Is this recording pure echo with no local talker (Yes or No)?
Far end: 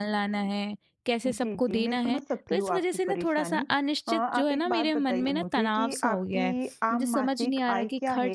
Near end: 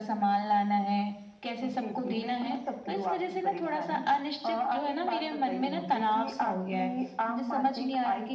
Yes